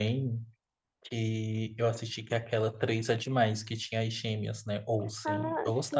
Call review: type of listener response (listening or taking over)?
taking over